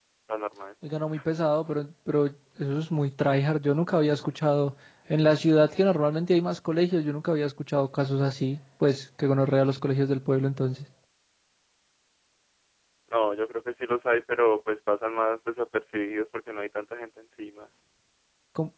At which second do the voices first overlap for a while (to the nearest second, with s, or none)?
none